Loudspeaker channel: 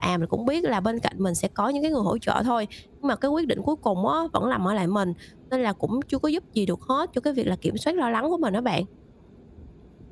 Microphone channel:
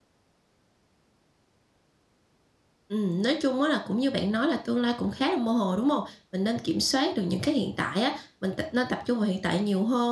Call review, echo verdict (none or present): none